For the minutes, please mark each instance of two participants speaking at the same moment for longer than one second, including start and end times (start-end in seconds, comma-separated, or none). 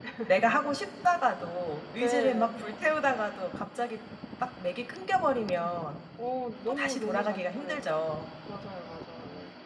6.7-7.9